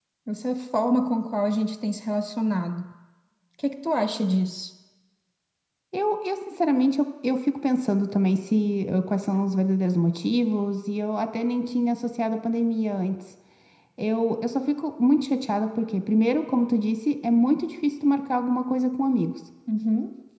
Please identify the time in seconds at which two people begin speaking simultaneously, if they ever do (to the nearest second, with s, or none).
none